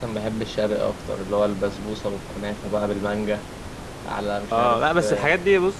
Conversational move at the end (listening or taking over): taking over